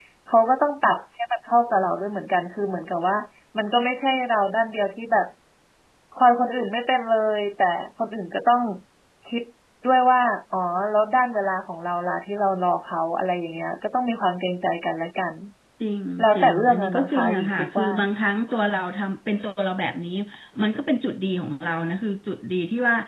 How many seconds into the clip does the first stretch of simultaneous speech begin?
16.2 s

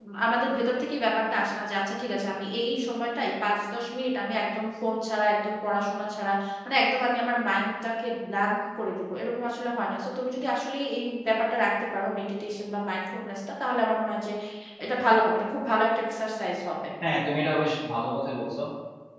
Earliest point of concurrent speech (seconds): none

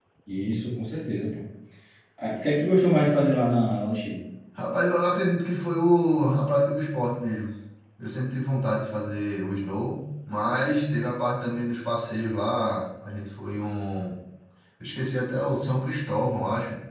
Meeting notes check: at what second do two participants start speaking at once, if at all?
none

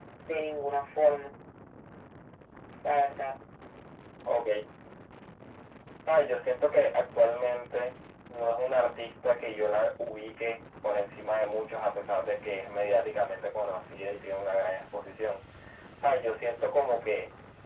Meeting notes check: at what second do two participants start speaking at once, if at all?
none

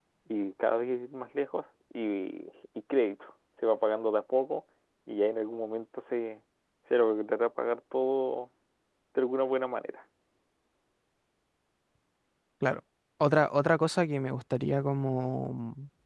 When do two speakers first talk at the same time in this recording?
none

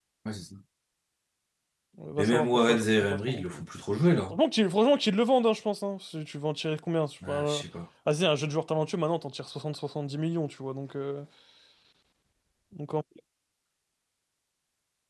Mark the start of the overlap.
2.2 s

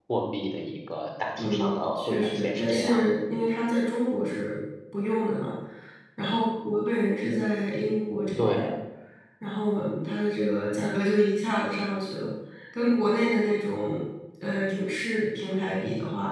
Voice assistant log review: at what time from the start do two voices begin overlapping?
1.4 s

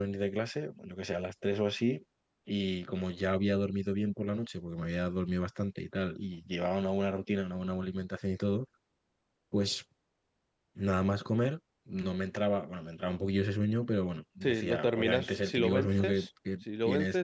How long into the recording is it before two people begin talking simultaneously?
14.4 s

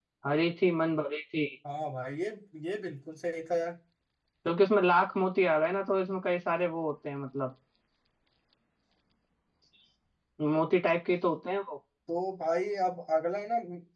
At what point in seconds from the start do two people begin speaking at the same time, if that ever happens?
none

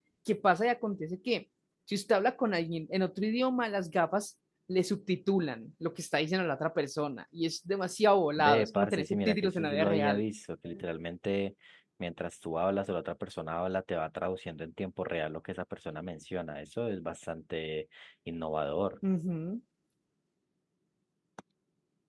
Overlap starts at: 8.4 s

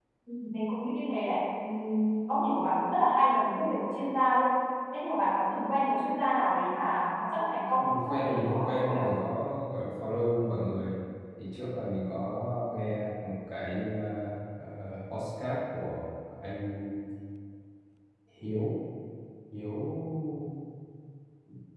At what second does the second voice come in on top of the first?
7.8 s

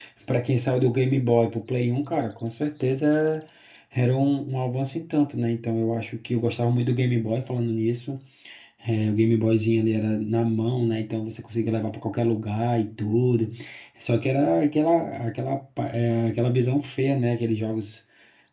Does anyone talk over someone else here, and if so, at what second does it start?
none

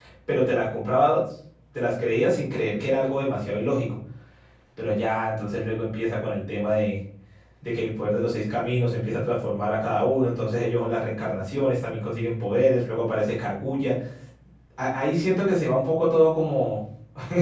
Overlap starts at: none

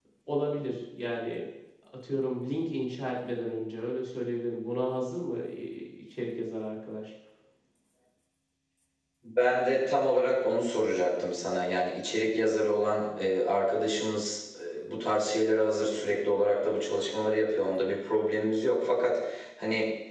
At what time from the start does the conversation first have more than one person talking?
none

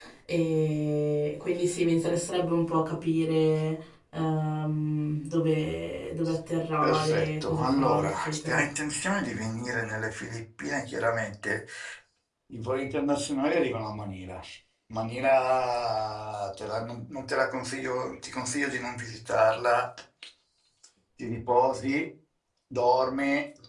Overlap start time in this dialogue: 6.8 s

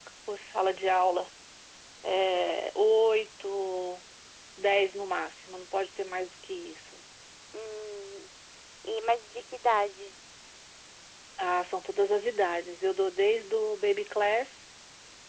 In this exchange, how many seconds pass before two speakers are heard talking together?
none

